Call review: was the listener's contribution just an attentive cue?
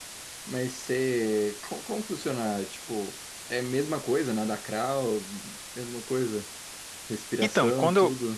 No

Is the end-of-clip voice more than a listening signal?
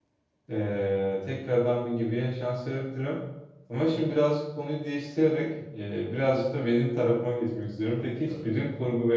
No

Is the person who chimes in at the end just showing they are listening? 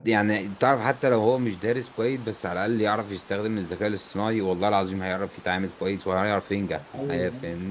No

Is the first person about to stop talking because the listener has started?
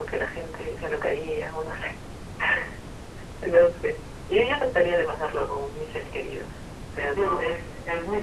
Yes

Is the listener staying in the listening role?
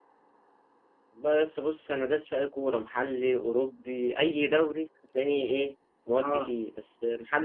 Yes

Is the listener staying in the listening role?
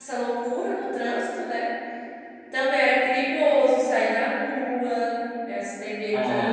Yes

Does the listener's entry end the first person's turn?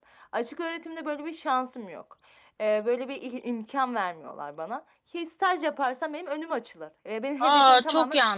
Yes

